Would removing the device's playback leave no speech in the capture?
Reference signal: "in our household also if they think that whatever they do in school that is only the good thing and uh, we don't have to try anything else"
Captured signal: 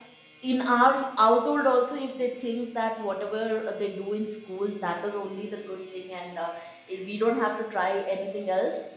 Yes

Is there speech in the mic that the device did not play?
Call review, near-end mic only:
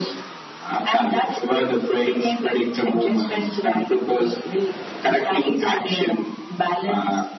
No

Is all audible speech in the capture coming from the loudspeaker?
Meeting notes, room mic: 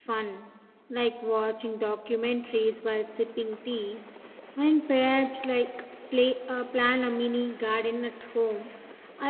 No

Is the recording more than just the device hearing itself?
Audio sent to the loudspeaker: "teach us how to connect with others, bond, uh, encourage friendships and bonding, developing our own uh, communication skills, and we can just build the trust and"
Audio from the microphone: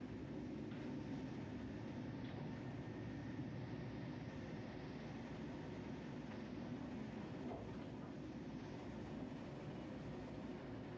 No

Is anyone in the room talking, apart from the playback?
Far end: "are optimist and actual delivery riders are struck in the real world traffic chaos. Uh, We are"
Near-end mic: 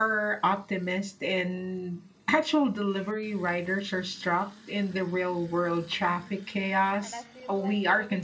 Yes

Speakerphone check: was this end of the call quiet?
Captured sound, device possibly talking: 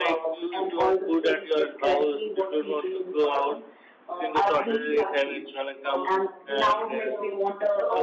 No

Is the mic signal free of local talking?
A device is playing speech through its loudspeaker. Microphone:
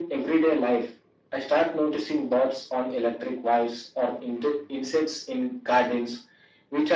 Yes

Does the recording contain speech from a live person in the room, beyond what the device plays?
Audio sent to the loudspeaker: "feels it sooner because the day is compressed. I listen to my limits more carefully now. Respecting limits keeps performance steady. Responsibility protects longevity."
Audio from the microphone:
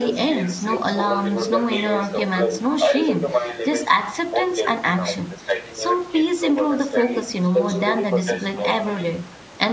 Yes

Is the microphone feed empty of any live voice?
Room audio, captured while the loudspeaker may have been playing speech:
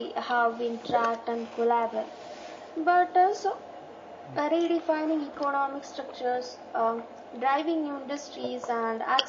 Yes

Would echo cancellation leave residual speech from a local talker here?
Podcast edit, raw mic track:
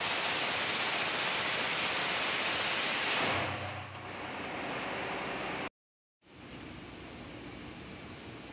No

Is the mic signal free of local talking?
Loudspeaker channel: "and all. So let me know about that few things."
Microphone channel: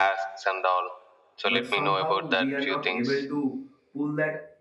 No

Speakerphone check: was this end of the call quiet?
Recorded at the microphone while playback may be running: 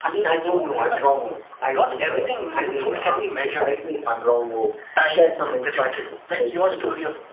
No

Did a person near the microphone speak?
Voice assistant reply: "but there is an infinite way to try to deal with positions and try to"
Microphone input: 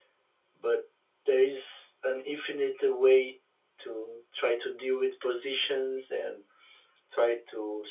No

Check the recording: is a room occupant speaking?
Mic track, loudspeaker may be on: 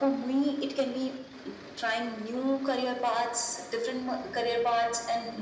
No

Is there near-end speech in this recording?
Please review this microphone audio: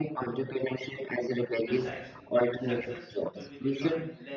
Yes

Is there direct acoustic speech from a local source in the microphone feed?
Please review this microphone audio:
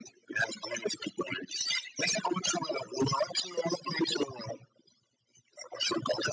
No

